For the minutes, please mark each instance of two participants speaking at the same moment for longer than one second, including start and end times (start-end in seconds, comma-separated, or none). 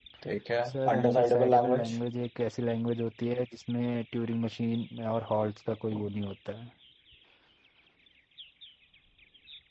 0.7-2.0